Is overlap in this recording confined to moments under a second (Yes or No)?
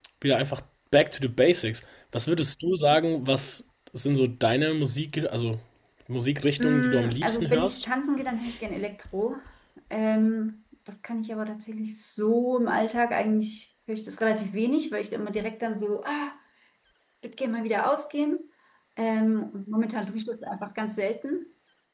No